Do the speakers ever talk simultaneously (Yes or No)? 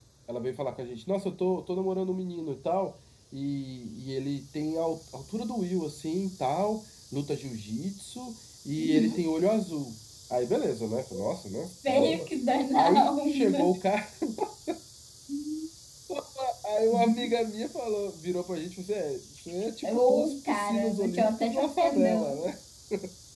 Yes